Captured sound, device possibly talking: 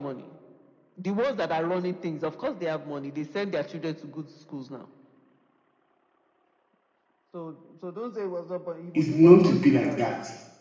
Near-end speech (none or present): present